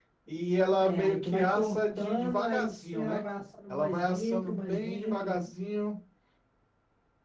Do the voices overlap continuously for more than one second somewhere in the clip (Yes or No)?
Yes